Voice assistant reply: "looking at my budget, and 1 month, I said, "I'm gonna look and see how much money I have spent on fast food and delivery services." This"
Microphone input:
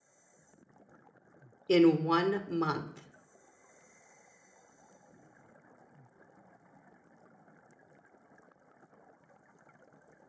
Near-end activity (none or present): present